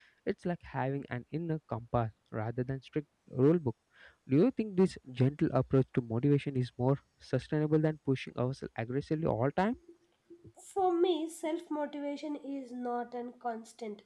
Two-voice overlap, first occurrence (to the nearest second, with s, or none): none